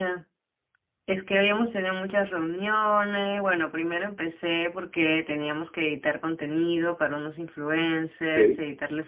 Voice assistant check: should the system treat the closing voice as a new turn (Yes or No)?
No